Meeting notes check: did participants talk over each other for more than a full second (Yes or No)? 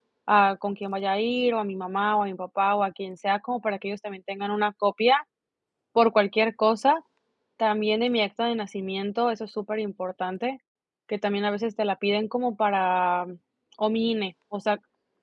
No